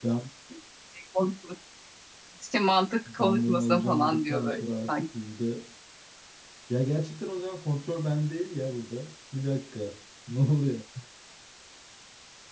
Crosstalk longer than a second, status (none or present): present